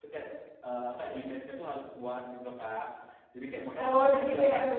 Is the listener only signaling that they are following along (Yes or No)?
No